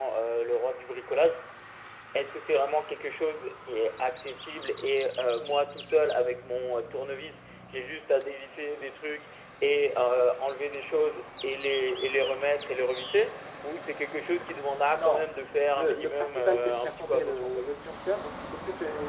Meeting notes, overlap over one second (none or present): present